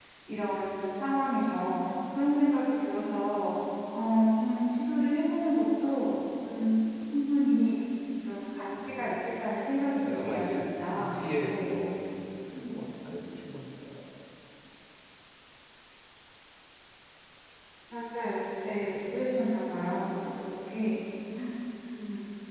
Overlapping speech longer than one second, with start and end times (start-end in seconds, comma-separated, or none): 10.1-11.9